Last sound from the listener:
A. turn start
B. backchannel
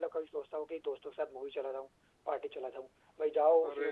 B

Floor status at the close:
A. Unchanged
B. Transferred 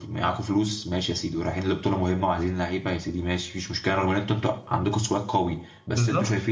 A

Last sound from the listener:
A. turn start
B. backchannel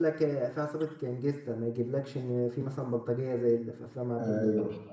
A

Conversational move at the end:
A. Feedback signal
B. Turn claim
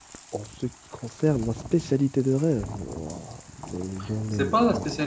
B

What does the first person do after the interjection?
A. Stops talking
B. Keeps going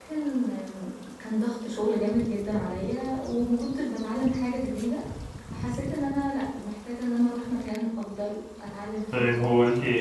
A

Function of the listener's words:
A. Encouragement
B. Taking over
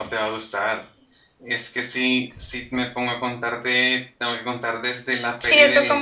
B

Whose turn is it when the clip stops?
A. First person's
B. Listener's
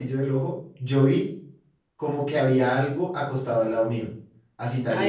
A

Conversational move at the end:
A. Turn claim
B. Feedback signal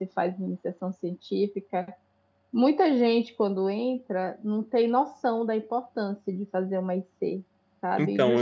B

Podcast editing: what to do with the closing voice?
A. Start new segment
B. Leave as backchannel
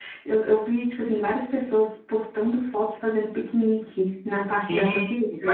A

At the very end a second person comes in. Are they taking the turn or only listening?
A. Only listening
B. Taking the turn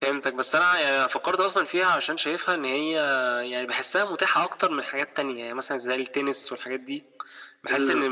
A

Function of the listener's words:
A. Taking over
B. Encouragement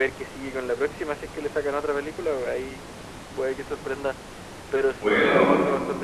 B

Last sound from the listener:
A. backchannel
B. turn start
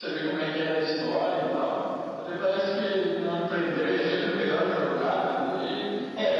B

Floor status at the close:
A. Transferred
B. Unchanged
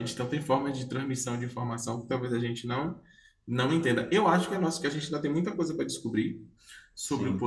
B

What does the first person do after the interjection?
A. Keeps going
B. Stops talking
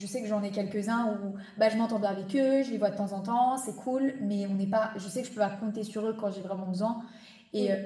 A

